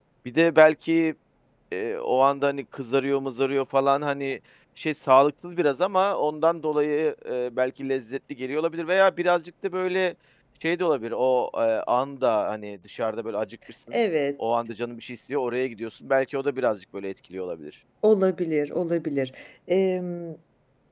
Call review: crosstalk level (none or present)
none